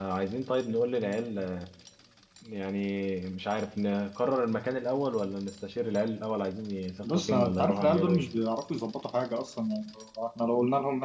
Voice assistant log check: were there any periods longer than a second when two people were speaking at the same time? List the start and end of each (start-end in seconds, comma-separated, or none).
7.0-8.2